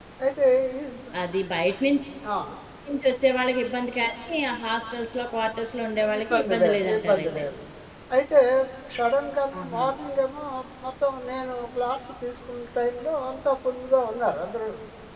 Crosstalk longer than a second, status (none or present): present